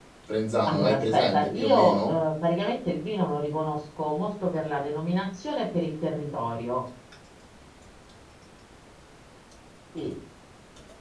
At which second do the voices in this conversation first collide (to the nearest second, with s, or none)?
1 s